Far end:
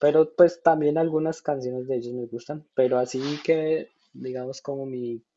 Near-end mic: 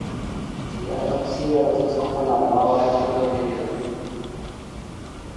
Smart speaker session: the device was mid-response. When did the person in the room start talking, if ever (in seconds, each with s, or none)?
0.7 s